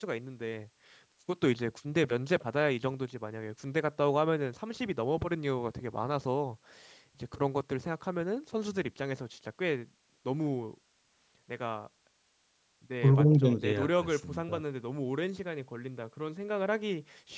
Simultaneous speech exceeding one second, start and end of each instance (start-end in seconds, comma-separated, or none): 13.0-14.6